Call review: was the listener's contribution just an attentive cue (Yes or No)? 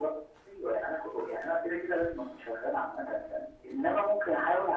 Yes